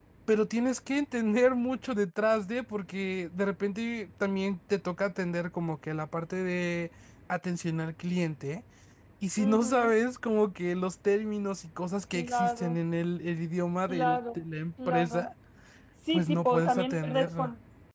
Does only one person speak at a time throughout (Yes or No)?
No